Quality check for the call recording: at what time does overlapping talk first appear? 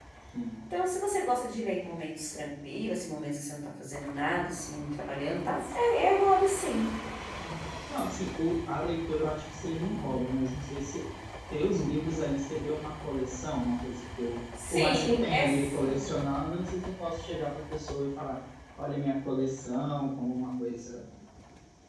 14.6 s

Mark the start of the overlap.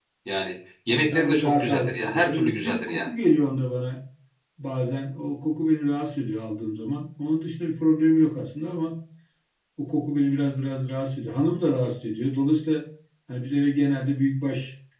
0.9 s

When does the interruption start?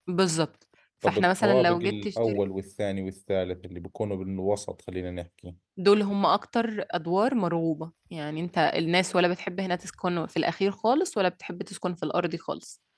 1.1 s

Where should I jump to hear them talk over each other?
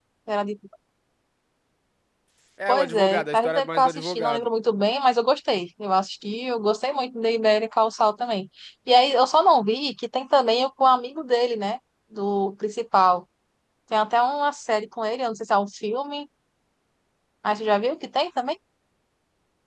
2.7 s

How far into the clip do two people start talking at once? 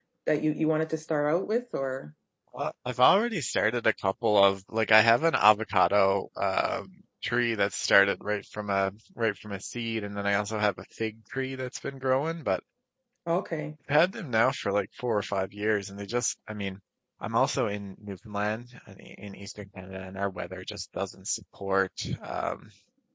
none

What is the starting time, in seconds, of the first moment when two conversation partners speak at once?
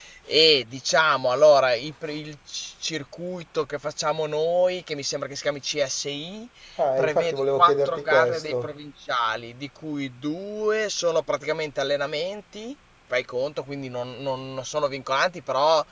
7.0 s

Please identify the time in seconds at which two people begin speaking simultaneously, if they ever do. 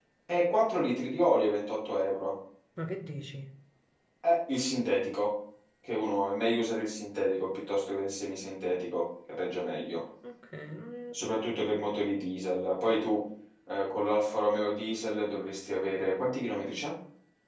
none

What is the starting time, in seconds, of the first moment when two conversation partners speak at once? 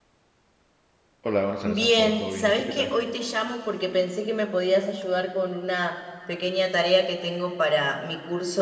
1.6 s

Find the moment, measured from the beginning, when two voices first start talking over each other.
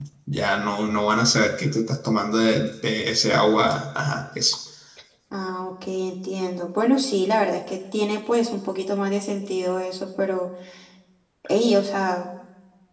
none

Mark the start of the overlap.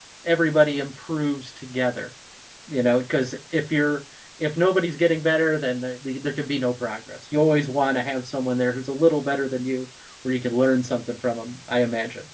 none

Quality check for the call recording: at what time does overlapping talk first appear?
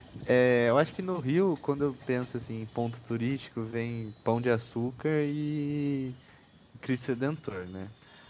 none

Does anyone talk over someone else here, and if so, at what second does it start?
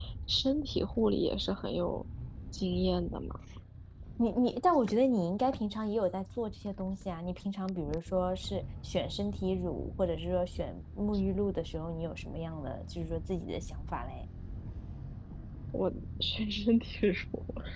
none

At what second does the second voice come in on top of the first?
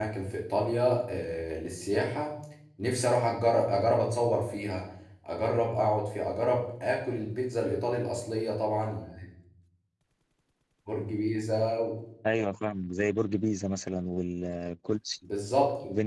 none

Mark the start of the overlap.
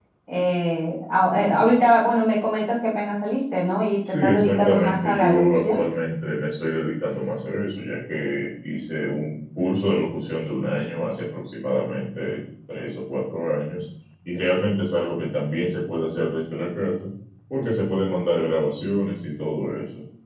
4.0 s

